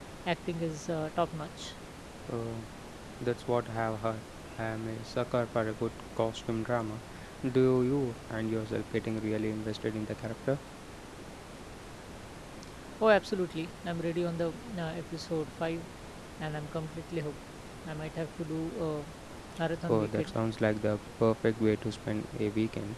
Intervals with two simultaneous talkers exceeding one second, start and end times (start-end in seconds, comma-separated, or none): none